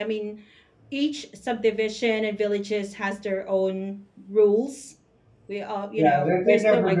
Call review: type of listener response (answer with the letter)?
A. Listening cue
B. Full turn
B